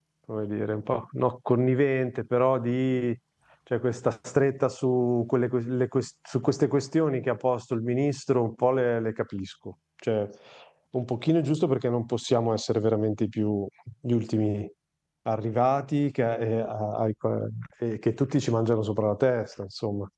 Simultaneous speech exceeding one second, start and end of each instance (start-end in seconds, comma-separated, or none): none